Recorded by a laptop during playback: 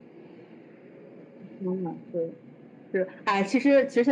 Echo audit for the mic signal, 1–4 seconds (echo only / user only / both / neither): echo only